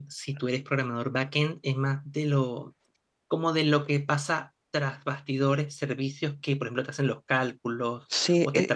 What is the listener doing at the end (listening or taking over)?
taking over